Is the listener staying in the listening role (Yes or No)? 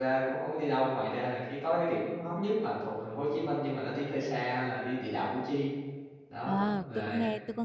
No